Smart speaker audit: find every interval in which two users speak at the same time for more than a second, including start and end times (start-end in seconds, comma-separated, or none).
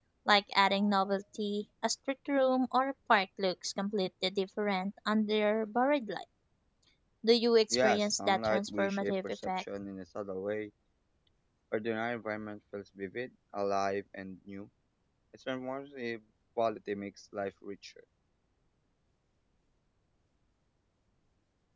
7.7-9.6